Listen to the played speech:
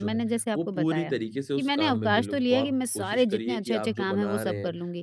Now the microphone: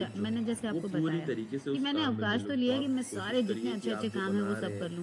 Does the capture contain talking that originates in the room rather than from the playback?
No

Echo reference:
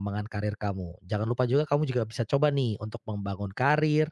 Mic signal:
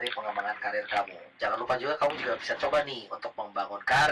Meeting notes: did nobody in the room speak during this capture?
Yes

